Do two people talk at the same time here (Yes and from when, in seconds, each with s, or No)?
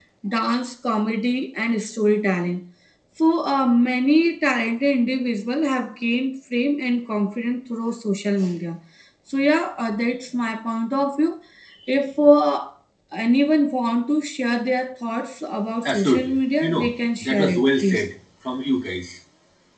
Yes, from 15.8 s